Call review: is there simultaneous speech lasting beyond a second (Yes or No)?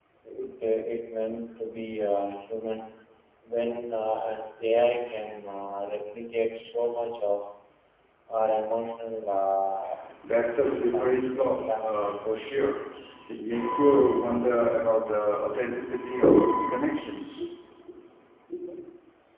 Yes